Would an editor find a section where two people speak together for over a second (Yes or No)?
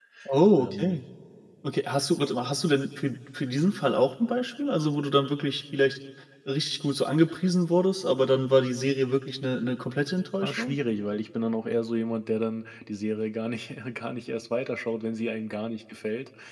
No